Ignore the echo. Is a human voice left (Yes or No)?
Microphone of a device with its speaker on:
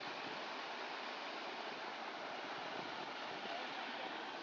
No